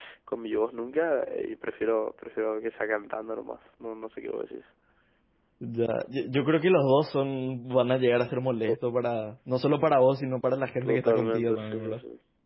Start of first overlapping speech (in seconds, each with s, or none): 10.8 s